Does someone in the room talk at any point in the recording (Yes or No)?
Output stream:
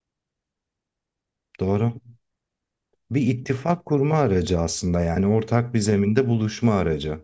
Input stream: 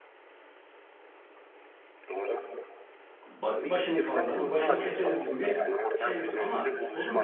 Yes